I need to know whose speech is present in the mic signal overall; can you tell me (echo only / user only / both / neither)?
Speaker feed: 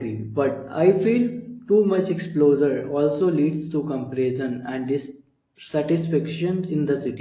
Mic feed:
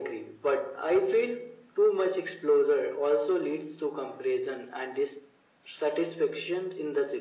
echo only